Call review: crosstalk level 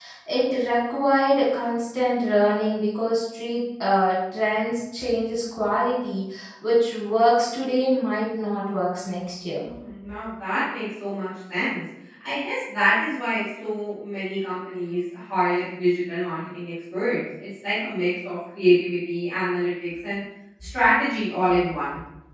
none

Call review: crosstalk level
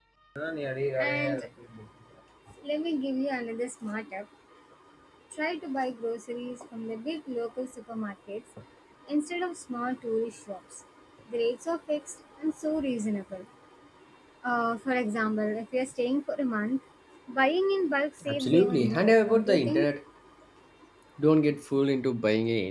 present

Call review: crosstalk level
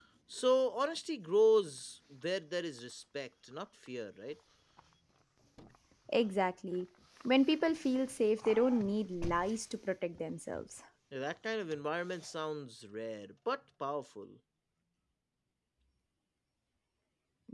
none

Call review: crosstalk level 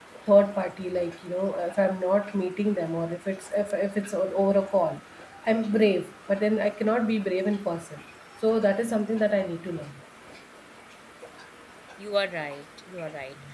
none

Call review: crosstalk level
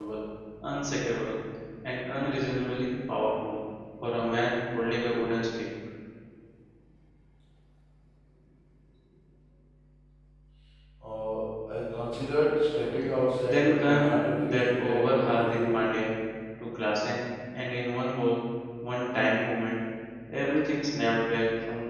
present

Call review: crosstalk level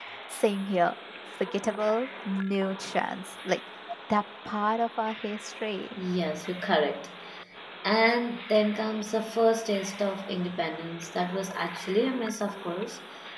none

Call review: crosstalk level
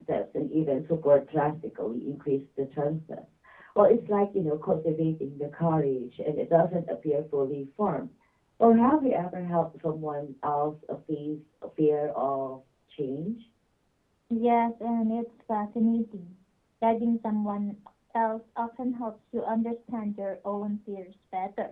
none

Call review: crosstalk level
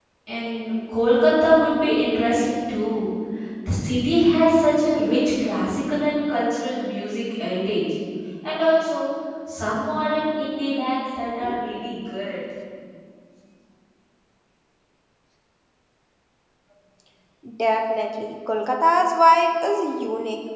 none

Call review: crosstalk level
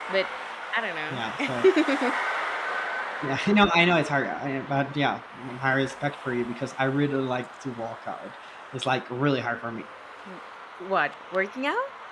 none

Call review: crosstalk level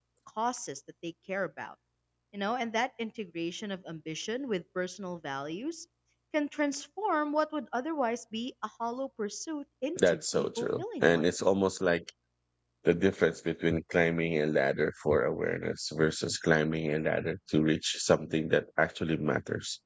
present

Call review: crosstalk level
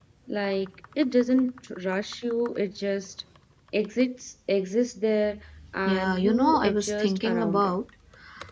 present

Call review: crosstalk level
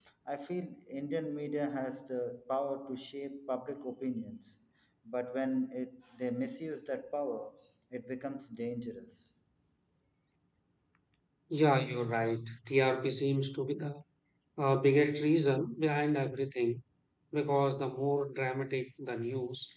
none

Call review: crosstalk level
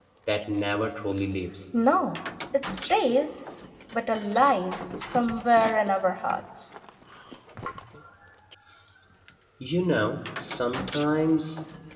none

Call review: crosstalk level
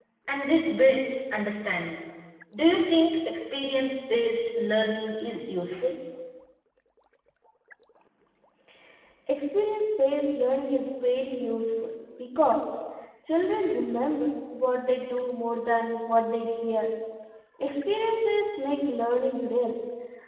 none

